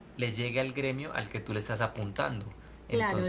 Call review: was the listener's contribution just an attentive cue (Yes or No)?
No